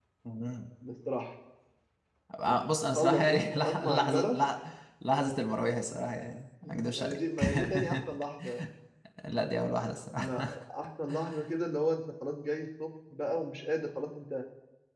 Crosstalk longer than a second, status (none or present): present